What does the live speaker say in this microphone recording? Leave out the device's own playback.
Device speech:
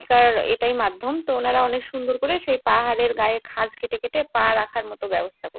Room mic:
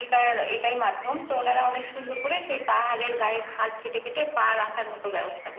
none

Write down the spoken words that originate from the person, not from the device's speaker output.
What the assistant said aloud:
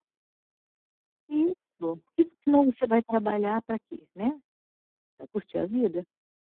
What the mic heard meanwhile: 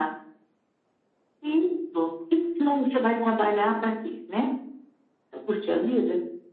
none

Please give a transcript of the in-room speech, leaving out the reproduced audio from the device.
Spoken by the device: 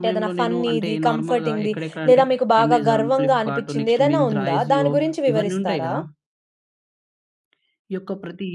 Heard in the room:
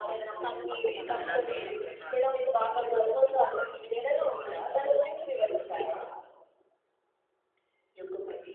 తప్పకుండా ఎలా అంటే,

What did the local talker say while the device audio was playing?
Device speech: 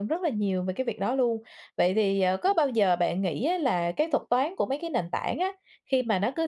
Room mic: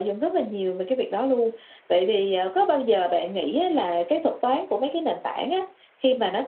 none

